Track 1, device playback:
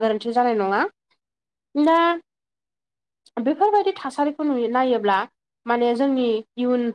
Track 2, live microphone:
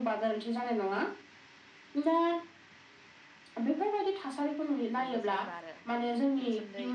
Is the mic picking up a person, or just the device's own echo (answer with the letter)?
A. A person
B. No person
A